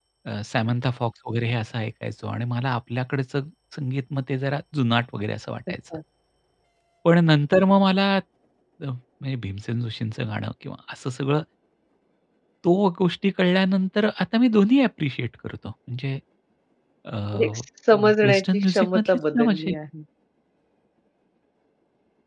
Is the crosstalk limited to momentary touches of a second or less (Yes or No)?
No